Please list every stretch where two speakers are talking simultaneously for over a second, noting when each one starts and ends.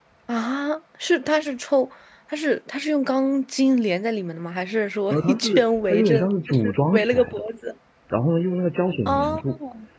5.1-7.4

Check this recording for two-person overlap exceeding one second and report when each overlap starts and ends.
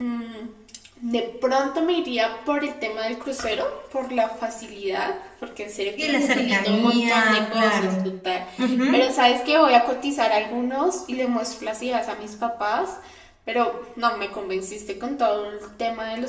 6.0-7.9

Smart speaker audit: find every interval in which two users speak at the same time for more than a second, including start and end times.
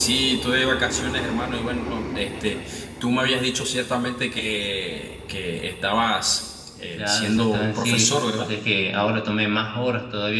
7.0-8.5

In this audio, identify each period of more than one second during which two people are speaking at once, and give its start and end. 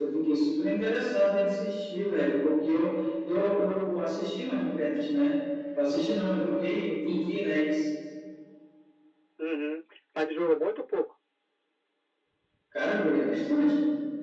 none

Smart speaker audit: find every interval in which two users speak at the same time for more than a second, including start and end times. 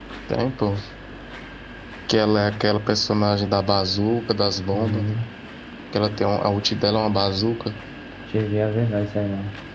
none

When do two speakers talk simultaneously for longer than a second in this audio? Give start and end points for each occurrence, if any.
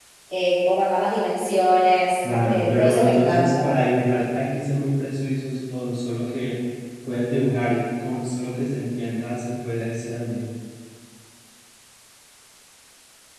2.2-3.7

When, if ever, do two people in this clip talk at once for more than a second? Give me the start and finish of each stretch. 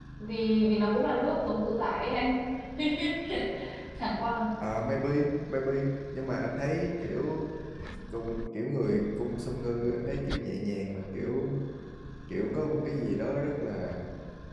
none

